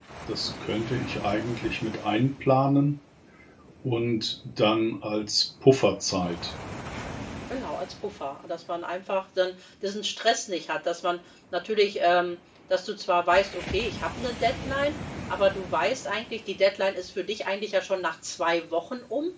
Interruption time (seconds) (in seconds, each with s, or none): none